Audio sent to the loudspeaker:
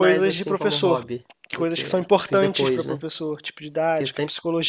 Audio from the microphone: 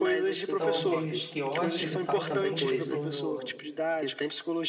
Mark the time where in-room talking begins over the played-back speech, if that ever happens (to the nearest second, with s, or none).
1 s